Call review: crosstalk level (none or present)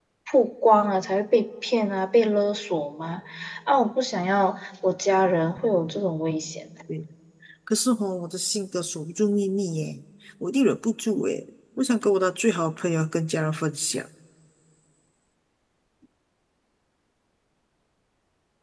none